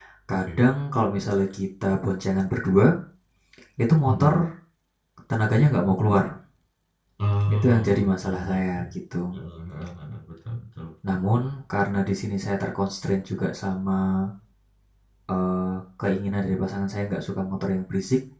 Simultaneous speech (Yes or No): Yes